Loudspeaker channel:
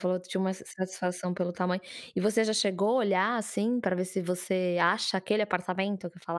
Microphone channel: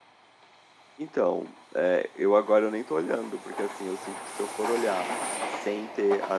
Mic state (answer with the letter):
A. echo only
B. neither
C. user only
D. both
C